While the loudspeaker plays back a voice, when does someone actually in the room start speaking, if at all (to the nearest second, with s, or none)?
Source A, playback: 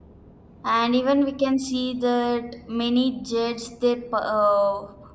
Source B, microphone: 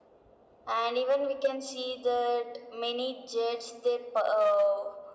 none